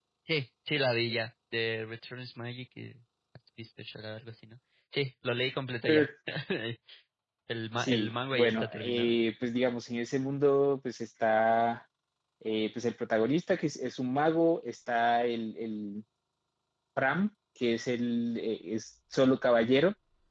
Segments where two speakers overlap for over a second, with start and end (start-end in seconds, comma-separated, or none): 7.8-9.1